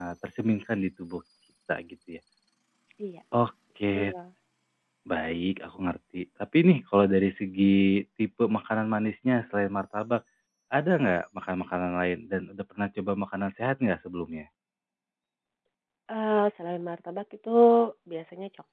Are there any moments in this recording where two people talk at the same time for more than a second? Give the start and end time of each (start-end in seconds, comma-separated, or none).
none